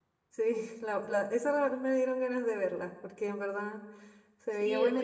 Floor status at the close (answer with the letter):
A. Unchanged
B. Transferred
B